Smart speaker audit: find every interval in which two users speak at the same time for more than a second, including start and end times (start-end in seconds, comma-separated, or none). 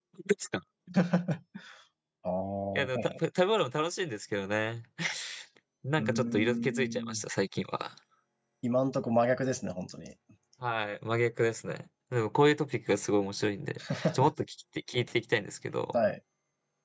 6.0-7.2